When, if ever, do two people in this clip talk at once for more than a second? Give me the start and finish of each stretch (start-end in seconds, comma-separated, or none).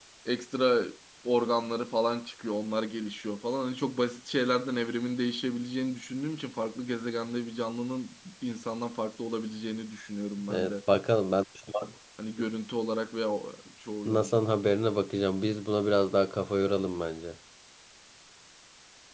none